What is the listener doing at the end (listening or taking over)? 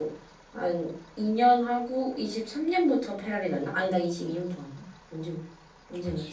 taking over